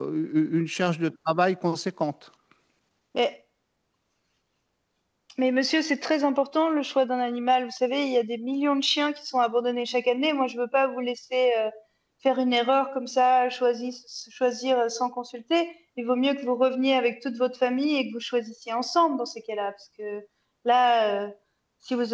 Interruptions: none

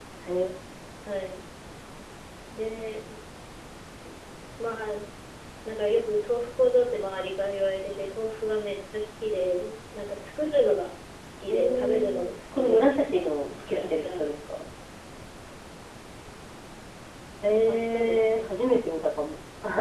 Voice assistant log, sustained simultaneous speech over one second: present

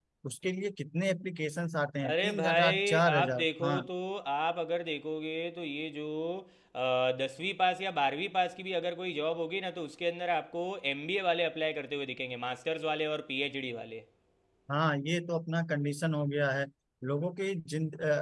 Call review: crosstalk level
present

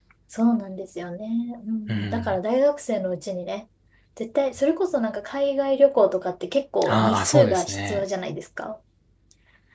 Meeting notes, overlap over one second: present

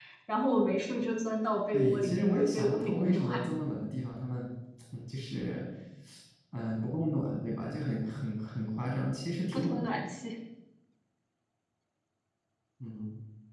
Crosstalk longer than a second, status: present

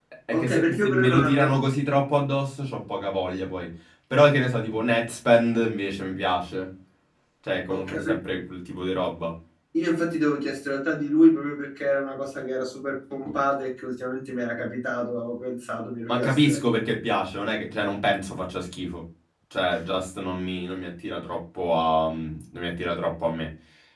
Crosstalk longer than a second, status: present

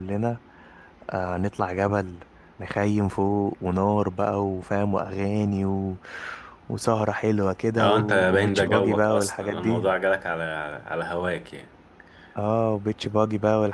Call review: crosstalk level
present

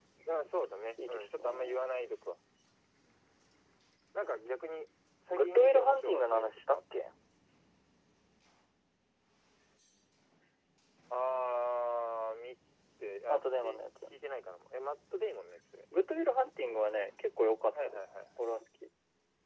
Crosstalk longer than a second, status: present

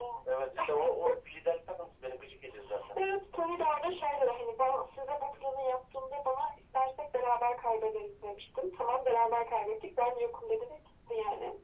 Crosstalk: none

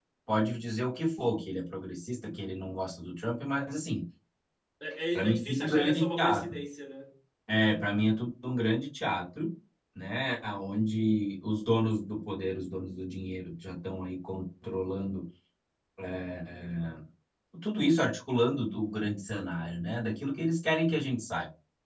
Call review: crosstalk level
present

